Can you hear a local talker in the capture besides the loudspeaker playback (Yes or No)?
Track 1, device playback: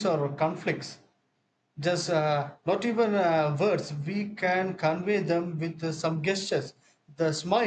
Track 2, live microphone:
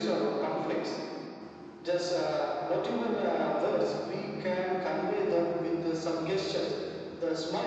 No